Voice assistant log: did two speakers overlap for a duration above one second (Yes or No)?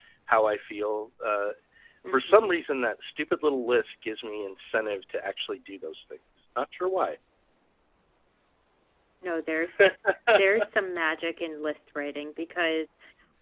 No